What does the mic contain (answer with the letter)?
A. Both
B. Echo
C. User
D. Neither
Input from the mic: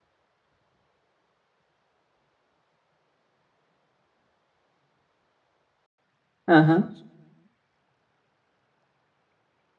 C